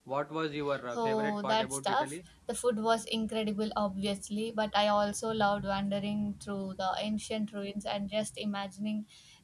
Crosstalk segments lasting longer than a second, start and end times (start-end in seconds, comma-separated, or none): 0.9-2.2